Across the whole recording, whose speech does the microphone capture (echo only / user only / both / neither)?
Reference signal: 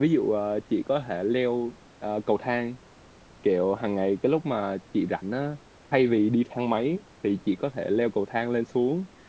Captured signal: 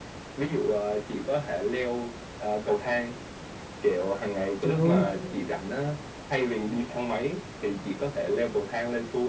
both